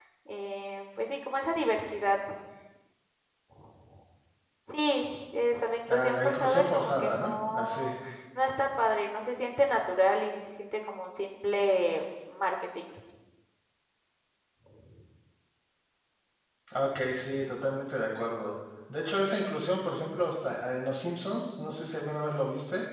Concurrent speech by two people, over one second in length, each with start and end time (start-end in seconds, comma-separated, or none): 5.9-7.9